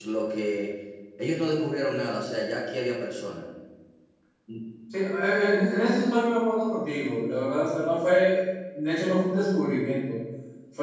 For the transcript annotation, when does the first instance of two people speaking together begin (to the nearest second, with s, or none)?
none